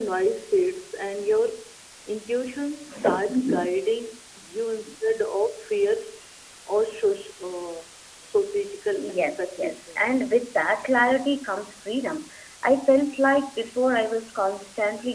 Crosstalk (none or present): present